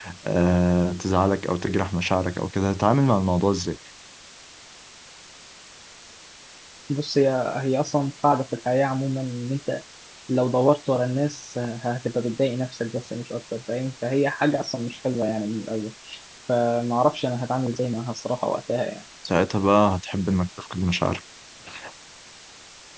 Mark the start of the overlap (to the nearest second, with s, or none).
none